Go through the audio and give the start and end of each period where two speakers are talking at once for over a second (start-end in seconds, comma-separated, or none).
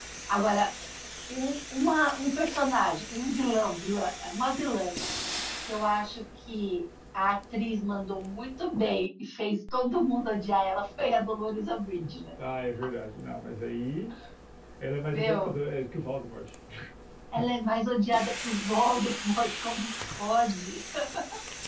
none